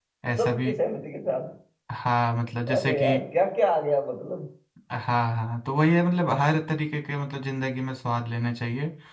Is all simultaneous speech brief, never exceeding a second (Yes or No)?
Yes